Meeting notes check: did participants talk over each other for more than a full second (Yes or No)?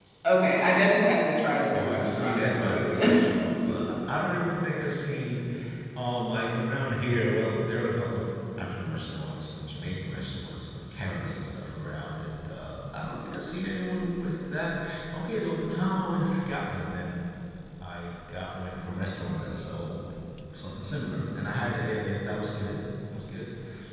Yes